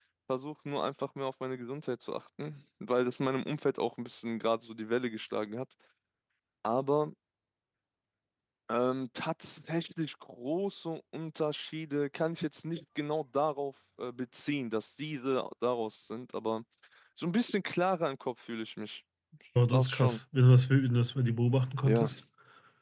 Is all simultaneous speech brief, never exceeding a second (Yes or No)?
Yes